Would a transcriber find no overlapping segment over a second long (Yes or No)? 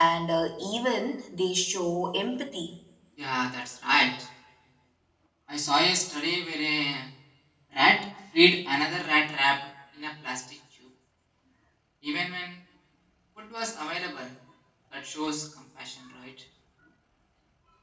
Yes